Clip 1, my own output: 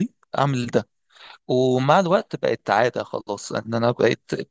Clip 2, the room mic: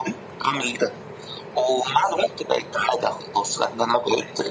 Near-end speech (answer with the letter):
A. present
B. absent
B